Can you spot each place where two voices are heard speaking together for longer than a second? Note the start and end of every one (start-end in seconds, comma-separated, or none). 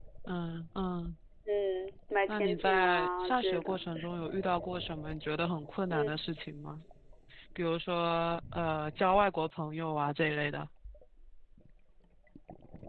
2.3-3.8